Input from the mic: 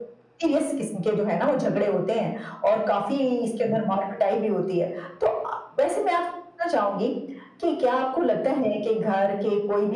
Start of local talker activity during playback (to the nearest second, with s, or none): none